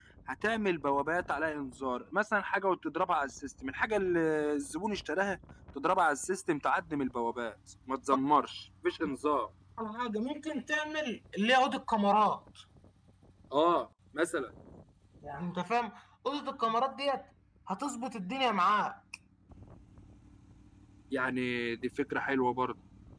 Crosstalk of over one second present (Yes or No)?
No